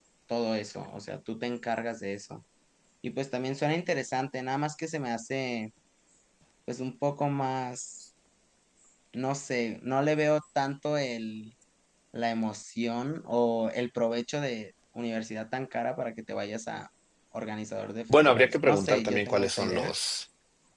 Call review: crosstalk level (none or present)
present